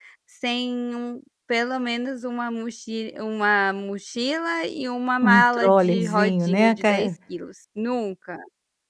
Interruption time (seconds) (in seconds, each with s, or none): 5.2 s